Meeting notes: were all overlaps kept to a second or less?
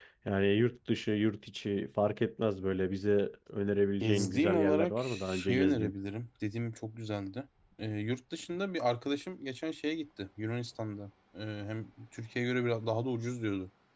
No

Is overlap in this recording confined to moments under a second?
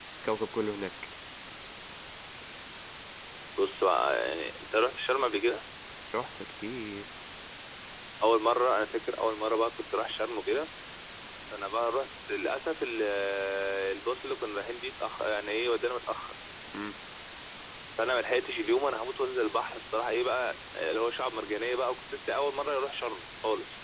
Yes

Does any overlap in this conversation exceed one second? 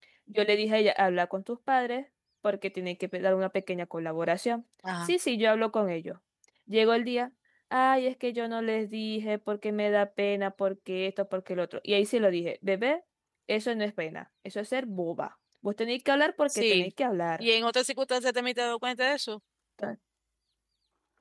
No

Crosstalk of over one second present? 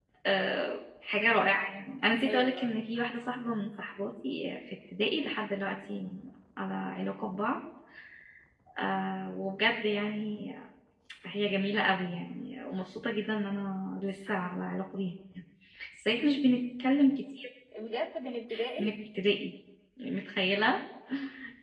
No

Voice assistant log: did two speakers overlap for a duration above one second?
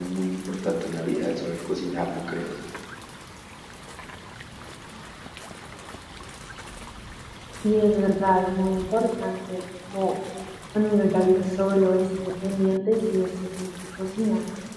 No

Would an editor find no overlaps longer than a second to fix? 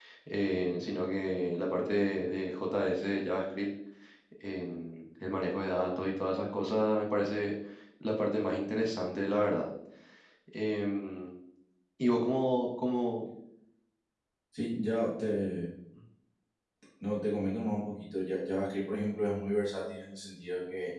Yes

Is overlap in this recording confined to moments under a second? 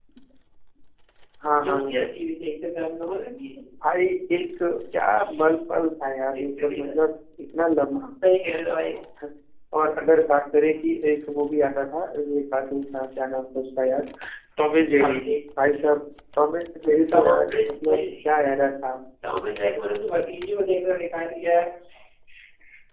No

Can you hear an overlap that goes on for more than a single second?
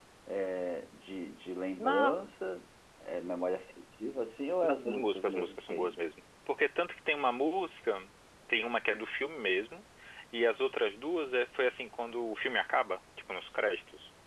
Yes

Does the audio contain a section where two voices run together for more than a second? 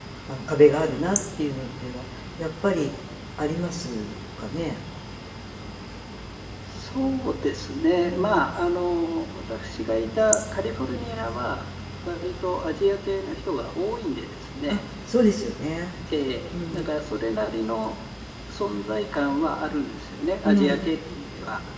No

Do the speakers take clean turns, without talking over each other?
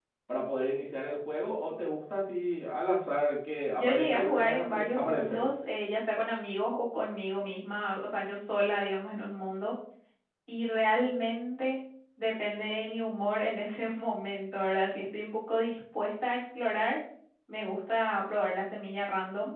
No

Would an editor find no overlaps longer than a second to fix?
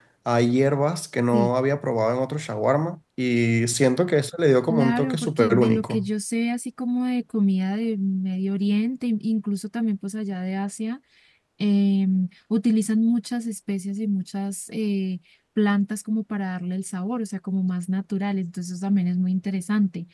No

